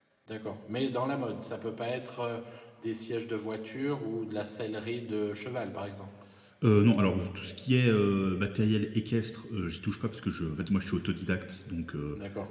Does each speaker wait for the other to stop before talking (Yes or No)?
Yes